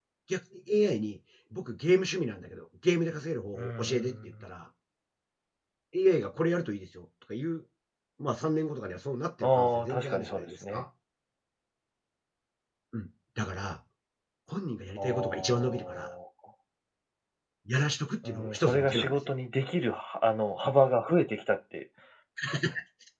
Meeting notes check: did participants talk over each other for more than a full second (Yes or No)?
Yes